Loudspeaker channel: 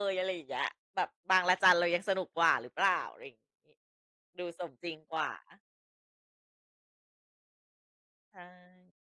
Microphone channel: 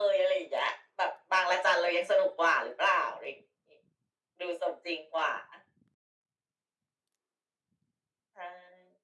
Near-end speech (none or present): none